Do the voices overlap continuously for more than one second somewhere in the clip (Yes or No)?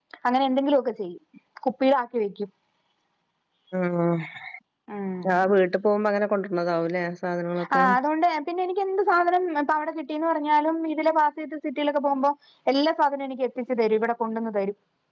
No